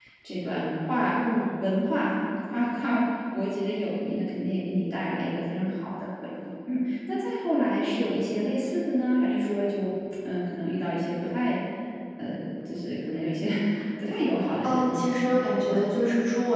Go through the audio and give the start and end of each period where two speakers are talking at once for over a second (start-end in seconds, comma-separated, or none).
14.6-16.1